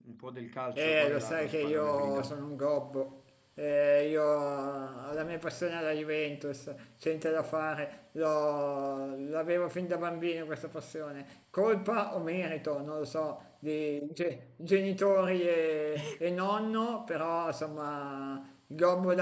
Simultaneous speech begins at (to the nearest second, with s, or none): 1 s